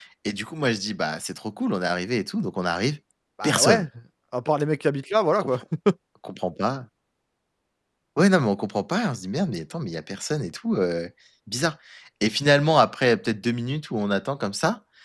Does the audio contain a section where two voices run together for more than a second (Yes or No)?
No